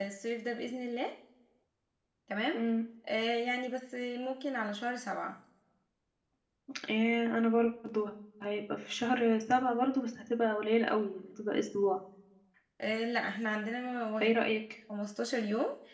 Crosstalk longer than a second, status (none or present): none